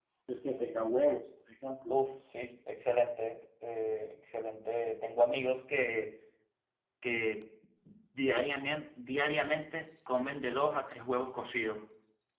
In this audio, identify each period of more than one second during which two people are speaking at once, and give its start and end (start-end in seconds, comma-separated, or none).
none